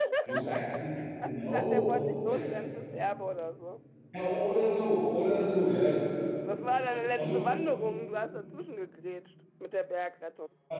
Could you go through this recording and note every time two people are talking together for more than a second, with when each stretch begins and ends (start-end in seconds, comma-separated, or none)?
1.2-2.6